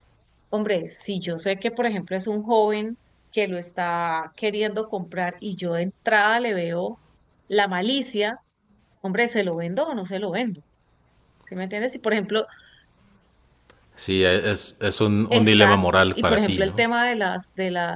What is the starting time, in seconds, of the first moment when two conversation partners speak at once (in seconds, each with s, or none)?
15.3 s